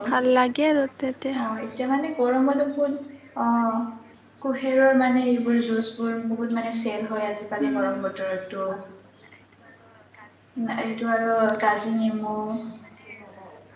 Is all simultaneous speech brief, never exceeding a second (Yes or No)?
Yes